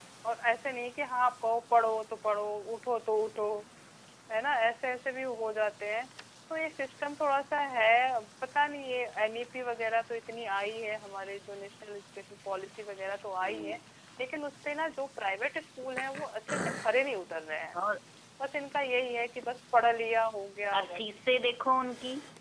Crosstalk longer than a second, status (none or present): none